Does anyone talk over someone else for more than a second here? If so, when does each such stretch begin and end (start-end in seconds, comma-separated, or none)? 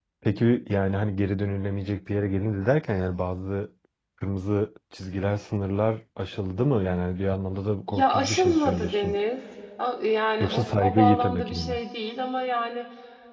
7.9-9.2, 10.4-11.8